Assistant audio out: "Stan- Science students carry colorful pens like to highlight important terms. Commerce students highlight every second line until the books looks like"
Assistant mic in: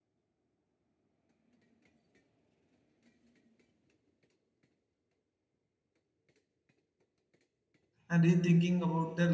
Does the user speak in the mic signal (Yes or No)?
Yes